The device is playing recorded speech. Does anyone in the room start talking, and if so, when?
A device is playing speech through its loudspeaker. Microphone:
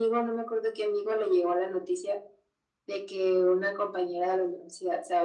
none

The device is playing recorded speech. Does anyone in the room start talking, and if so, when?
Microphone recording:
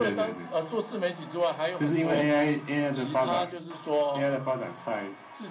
none

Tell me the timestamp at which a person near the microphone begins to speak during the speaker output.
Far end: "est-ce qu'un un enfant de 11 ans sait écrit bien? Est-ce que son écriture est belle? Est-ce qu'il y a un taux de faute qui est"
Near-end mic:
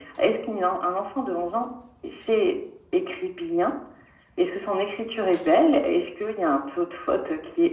none

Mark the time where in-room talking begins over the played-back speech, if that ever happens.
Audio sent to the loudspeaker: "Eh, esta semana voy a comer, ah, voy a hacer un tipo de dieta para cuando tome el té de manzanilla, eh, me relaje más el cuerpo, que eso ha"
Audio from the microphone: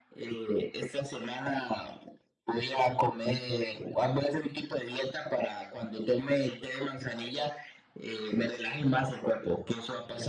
none

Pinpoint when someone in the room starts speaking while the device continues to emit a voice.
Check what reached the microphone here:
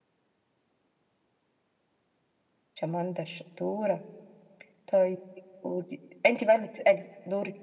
none

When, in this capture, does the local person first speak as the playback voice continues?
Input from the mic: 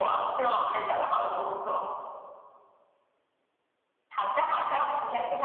none

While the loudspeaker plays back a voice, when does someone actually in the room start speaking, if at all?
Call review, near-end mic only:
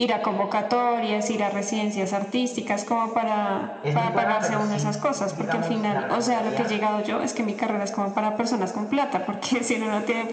3.8 s

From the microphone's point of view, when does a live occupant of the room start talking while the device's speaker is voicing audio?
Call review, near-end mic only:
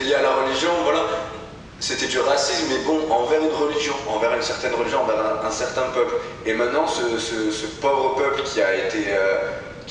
none

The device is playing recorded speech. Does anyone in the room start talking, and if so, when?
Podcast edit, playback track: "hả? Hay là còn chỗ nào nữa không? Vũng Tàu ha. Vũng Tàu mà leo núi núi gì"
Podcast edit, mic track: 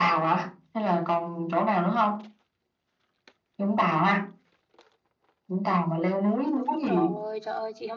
6.5 s

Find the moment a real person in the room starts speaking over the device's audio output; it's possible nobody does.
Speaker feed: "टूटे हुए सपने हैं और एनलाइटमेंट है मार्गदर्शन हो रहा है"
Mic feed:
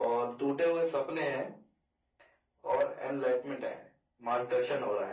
none

